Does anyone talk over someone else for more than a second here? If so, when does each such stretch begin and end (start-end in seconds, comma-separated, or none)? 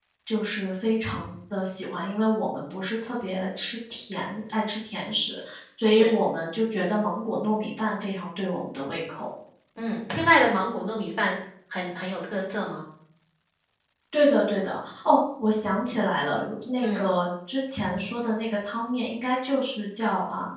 none